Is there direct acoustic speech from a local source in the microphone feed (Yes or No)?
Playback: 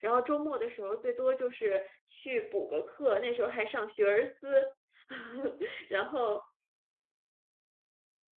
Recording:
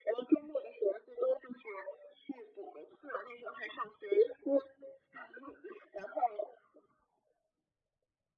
No